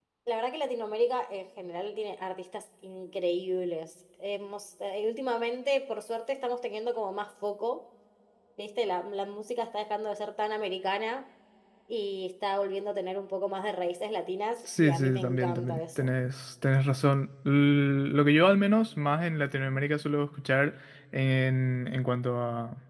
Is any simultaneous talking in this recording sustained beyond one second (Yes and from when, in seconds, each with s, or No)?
Yes, from 14.7 s